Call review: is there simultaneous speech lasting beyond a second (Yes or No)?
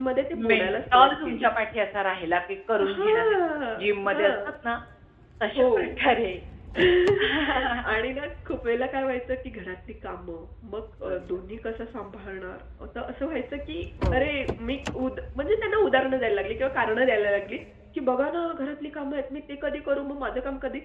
Yes